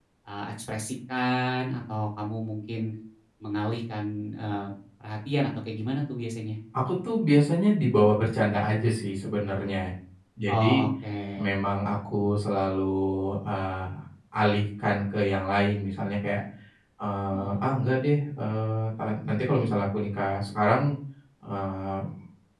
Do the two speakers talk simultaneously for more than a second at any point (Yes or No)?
No